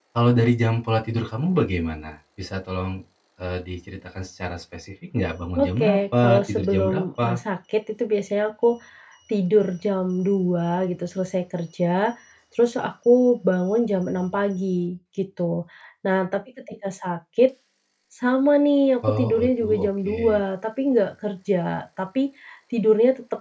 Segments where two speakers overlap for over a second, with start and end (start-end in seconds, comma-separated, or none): 5.6-7.4, 19.1-20.4